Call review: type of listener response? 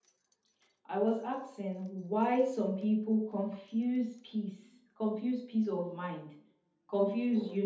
listening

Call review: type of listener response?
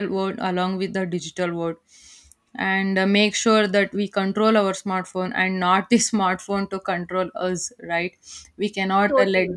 listening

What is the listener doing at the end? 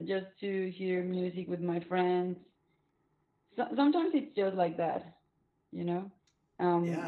taking over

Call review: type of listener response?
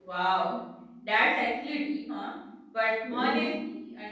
listening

